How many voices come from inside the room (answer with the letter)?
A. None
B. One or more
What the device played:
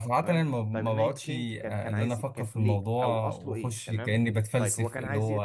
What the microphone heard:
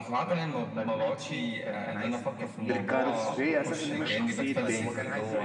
B